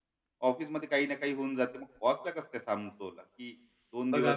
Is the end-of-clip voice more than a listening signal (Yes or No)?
Yes